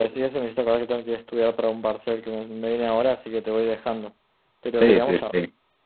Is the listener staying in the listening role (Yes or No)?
No